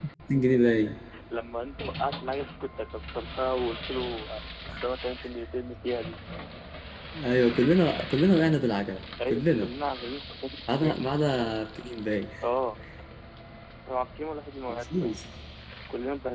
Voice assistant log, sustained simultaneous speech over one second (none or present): none